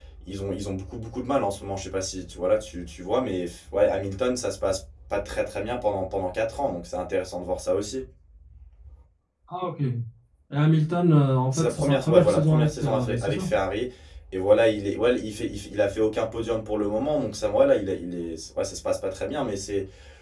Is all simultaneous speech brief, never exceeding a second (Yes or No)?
No